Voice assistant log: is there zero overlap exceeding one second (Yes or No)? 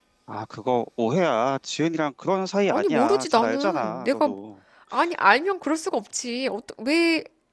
No